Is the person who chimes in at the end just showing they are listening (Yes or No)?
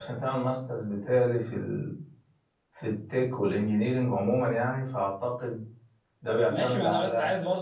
No